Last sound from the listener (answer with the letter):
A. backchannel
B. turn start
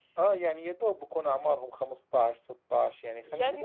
B